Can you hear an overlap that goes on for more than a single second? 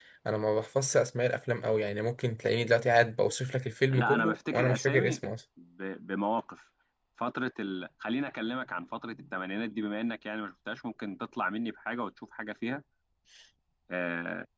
Yes, from 3.9 s

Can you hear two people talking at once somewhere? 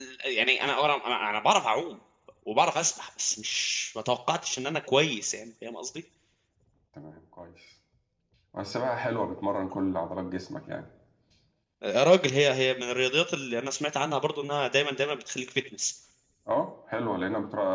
No

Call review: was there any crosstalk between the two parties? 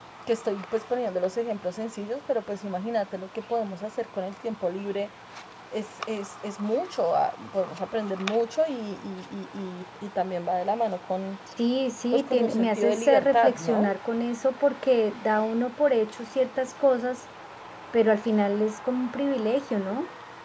Yes, from 12.1 s

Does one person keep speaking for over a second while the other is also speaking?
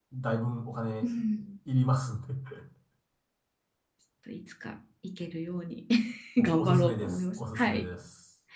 Yes, from 6.4 s

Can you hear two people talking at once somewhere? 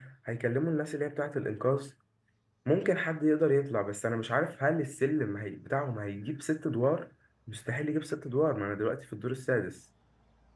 No

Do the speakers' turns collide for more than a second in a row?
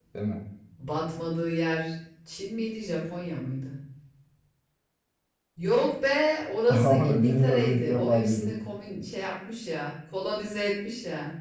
Yes, from 6.8 s

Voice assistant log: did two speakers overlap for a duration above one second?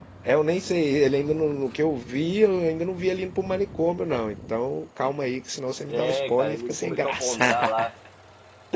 Yes, from 5.9 s

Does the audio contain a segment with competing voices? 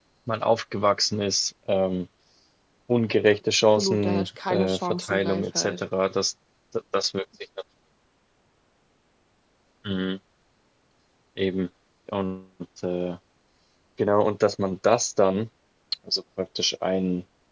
Yes, from 3.8 s

